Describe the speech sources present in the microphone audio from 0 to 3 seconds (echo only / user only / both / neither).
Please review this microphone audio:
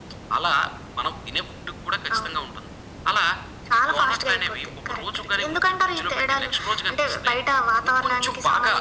echo only